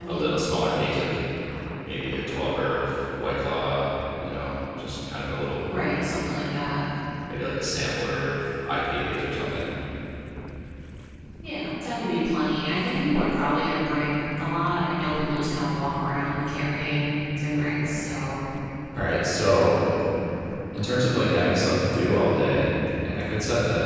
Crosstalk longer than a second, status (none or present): none